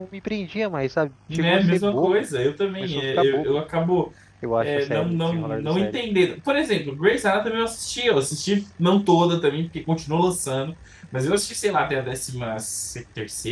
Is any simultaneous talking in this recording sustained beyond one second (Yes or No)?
Yes